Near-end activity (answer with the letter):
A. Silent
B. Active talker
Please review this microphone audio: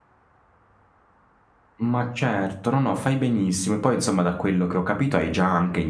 B